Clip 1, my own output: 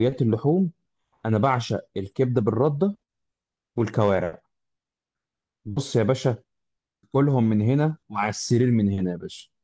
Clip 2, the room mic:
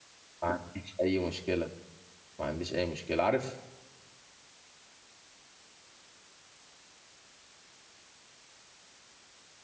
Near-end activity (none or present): present